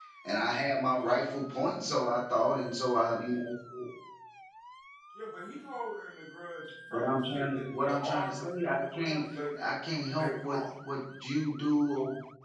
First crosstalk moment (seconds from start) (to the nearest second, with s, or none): 7 s